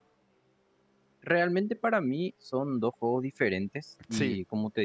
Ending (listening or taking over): listening